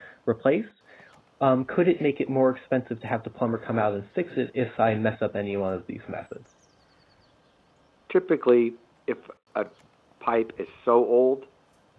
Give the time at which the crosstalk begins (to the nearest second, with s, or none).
none